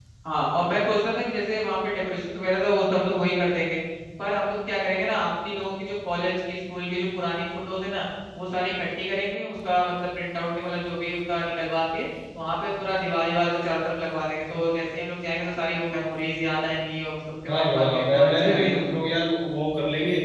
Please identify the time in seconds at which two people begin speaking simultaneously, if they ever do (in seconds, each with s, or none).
17.5 s